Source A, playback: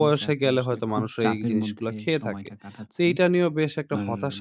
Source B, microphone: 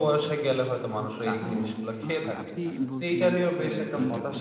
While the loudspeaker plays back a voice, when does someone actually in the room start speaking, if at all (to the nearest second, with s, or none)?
1 s